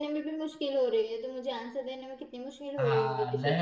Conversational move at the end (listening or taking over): taking over